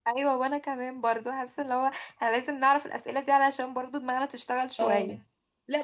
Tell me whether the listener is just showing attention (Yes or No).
No